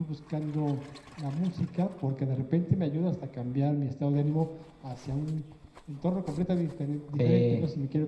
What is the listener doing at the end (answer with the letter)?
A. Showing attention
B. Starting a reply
A